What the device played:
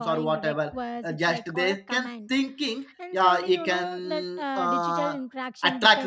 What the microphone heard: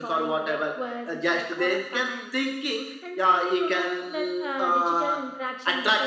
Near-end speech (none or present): none